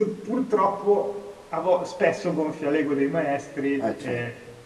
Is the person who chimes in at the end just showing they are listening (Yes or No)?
Yes